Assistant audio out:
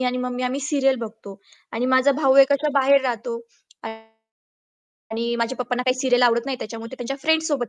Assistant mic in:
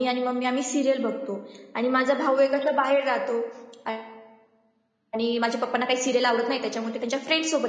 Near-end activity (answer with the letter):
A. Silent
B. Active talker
A